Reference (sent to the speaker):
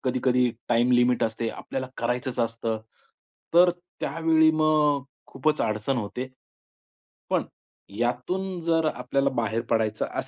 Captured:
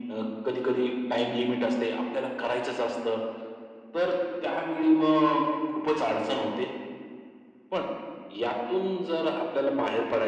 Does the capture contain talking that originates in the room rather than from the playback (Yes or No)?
No